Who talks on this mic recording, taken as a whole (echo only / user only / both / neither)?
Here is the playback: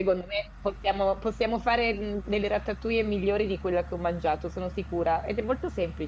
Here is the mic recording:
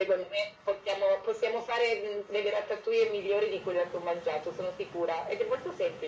echo only